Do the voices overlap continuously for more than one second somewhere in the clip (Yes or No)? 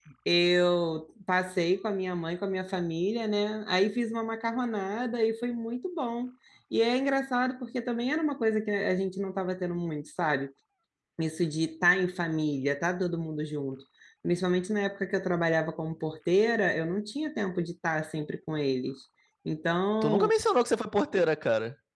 No